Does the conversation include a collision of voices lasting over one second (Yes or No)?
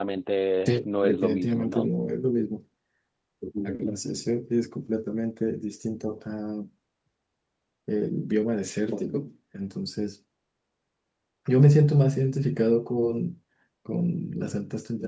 Yes